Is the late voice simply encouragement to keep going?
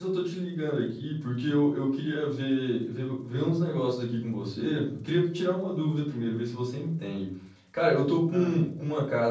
Yes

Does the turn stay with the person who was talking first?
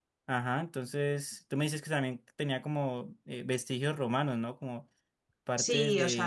No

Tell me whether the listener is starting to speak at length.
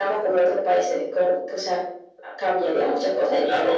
Yes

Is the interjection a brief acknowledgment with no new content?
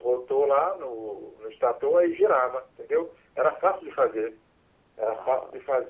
Yes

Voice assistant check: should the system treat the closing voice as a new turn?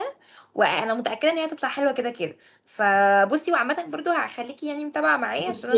Yes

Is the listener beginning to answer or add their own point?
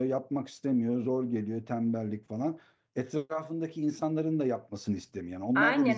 Yes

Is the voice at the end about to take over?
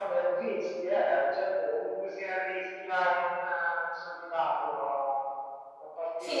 Yes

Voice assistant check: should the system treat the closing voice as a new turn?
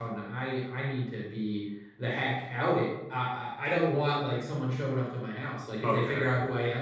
No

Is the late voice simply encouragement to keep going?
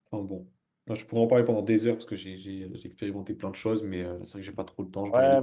No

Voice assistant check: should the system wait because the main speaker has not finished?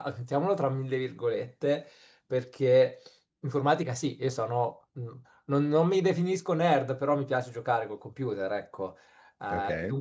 Yes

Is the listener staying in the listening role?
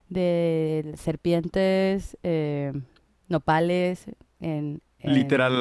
No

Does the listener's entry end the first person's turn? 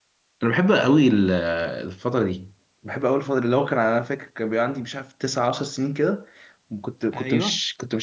No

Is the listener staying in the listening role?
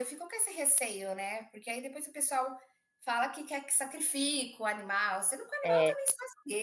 Yes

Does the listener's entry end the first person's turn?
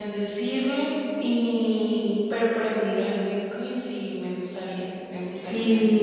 Yes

